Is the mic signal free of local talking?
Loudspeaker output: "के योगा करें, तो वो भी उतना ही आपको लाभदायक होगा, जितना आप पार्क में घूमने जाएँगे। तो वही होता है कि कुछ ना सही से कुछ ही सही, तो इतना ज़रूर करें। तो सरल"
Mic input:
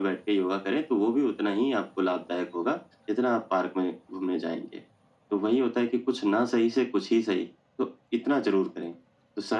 Yes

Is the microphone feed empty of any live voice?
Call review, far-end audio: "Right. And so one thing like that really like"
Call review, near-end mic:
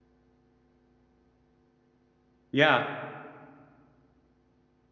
No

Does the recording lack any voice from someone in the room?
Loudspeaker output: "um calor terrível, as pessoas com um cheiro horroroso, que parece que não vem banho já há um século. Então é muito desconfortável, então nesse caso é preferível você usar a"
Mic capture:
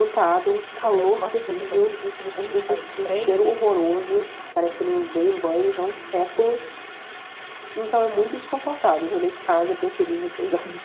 No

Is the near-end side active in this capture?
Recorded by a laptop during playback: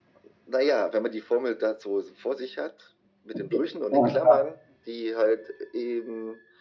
Yes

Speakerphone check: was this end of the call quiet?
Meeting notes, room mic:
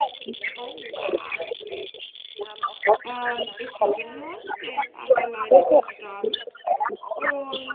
No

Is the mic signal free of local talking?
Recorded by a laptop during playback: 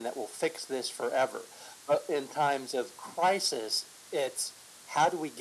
Yes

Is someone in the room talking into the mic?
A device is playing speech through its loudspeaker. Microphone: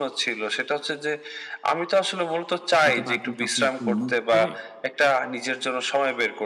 Yes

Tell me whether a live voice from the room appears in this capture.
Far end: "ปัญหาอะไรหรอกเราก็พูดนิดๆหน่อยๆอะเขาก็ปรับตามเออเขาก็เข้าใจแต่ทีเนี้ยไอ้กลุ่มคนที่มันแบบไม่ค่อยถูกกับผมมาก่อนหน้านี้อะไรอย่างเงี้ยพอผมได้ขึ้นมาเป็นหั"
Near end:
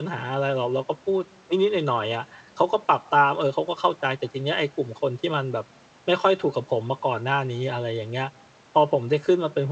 No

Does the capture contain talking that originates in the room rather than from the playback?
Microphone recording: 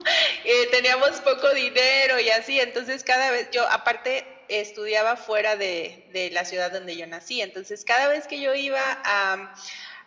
No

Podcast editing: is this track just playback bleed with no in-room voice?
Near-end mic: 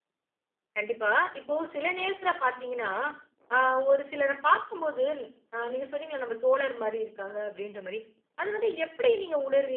No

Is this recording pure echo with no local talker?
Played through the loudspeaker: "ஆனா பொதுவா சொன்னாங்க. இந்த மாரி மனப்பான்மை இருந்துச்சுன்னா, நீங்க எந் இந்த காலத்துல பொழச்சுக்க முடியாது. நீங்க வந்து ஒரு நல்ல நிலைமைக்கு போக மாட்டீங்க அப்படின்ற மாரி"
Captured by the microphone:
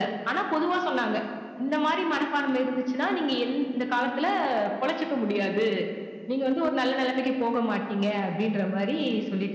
Yes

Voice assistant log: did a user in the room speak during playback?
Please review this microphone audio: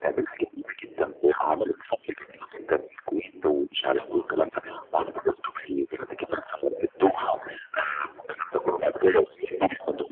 Yes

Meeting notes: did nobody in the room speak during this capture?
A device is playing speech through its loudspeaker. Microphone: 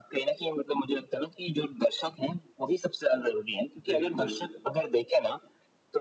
No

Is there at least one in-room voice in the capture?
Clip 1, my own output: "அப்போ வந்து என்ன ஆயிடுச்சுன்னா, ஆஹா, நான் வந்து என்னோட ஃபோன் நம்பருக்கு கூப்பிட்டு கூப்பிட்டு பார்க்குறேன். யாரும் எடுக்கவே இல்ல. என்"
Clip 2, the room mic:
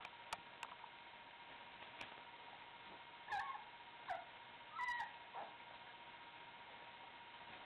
No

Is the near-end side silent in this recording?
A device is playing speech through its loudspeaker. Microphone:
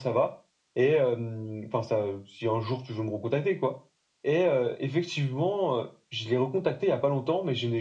Yes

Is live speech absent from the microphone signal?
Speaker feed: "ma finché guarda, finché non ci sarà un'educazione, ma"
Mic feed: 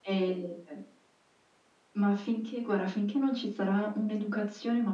Yes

